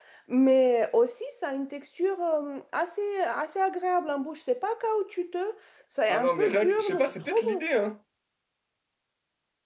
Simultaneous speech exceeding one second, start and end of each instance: 6.1-7.6

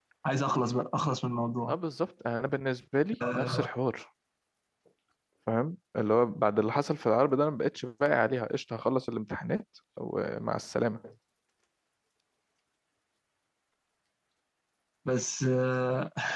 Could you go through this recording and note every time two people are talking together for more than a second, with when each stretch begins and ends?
none

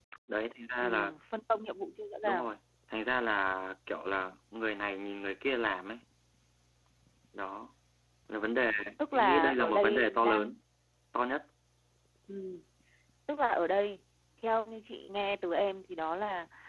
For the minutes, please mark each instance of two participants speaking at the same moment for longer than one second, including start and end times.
9.1-10.5

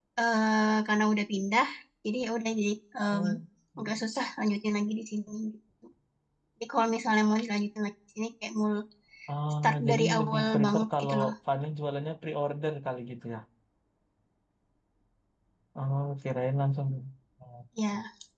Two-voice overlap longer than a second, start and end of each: 9.6-11.3

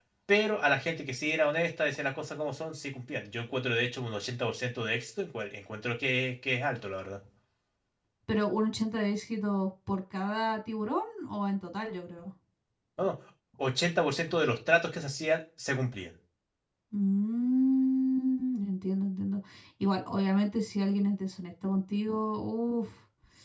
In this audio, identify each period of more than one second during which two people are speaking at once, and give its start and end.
none

